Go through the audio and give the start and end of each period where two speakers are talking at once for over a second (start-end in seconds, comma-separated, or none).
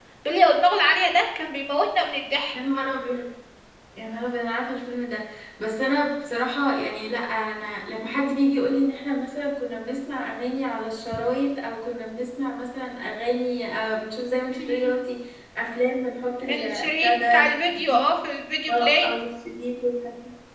16.5-18.1